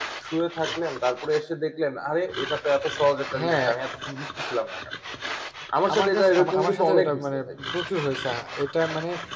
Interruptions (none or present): present